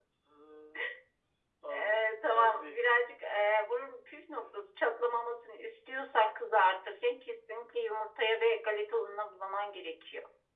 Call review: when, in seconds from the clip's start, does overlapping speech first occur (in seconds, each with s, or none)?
1.7 s